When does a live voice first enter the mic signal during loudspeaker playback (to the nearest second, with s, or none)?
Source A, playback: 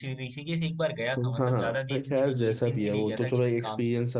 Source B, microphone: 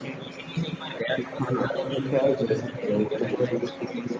none